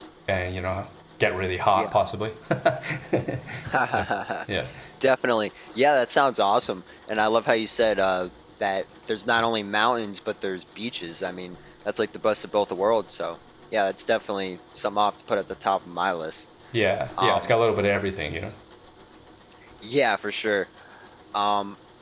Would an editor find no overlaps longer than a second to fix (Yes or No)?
Yes